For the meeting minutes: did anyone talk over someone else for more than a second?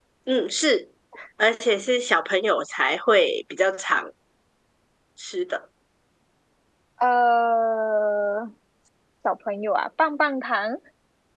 No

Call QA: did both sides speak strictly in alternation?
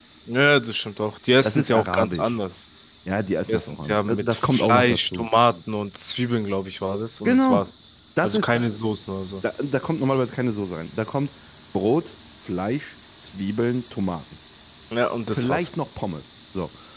No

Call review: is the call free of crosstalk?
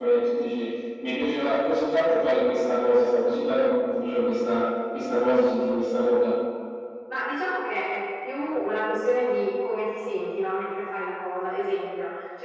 Yes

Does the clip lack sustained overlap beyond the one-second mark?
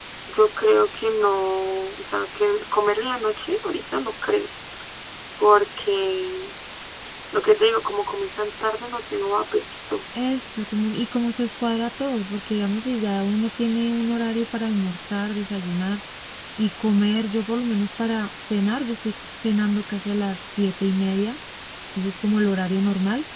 Yes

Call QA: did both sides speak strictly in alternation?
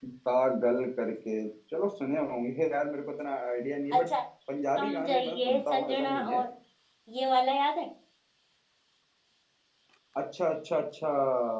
No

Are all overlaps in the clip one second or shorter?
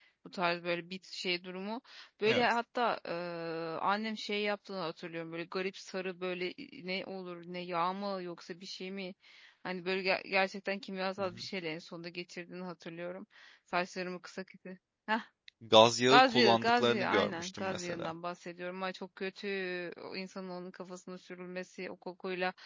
No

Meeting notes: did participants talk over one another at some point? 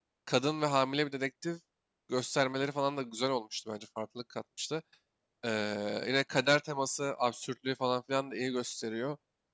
No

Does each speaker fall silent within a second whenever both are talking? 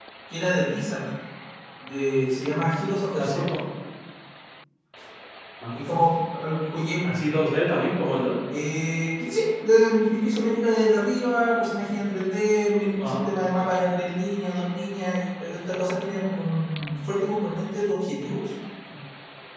Yes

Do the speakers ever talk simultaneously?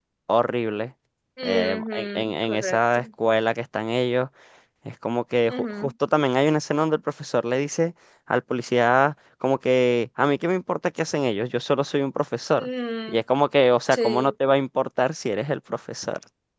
Yes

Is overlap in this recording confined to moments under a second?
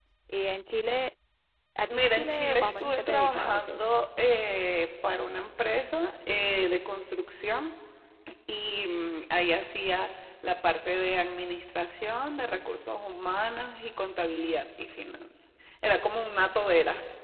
No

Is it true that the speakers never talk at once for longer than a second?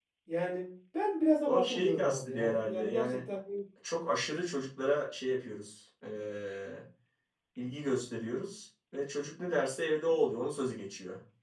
No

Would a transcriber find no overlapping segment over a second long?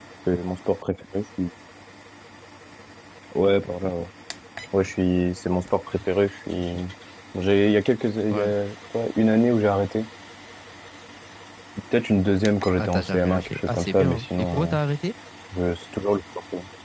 No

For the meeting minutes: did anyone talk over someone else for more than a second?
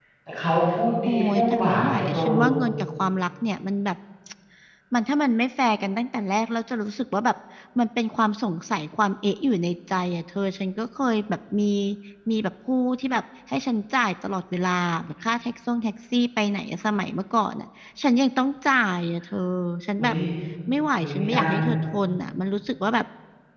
Yes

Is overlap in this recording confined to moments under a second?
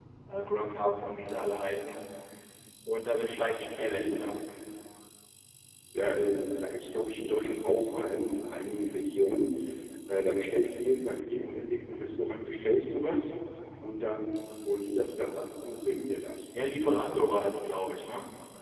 Yes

